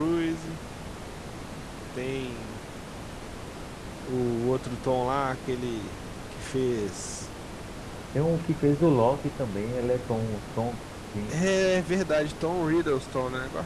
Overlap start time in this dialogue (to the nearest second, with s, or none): none